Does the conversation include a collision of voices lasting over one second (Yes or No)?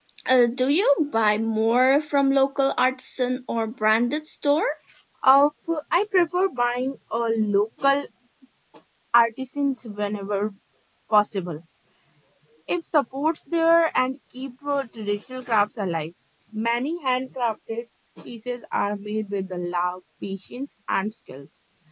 No